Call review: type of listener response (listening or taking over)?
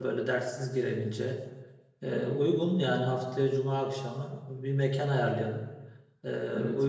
listening